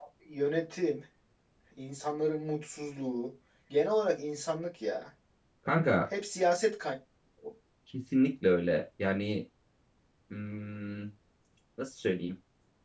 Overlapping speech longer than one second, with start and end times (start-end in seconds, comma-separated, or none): none